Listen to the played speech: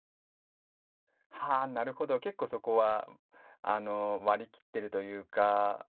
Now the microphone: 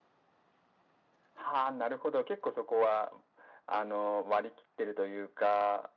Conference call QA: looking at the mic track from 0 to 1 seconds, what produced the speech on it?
neither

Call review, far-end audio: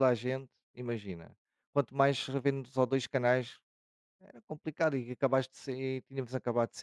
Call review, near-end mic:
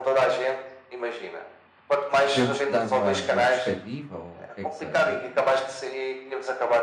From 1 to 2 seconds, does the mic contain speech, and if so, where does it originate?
echo only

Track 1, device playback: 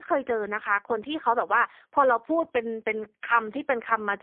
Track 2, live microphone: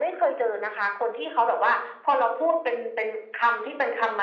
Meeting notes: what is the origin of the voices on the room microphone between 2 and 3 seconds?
echo only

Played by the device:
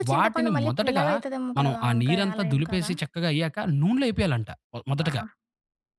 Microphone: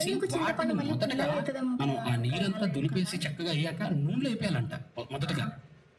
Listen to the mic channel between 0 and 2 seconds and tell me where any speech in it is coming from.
echo only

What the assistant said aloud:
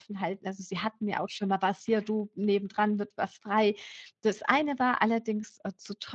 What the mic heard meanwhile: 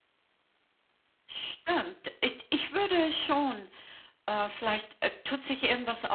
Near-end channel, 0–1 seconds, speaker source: neither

